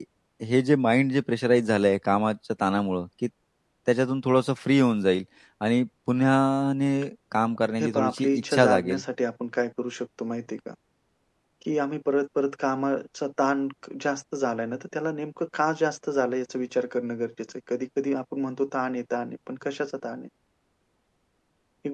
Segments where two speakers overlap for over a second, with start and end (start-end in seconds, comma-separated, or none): 7.8-9.0